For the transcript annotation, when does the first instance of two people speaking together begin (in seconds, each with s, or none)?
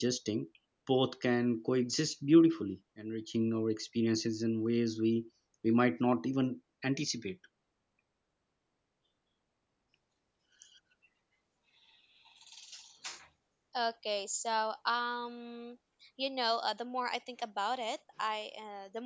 none